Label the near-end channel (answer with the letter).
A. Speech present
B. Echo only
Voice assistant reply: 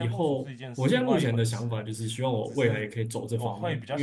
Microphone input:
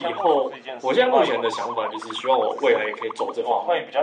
B